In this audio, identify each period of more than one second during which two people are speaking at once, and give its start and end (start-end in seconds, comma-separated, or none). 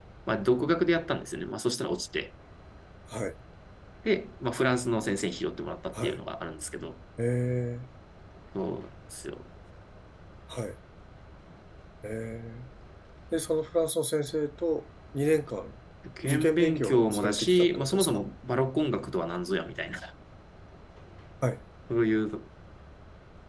16.3-18.2